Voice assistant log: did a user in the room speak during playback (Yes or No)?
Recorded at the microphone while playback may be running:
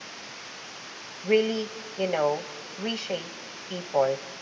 Yes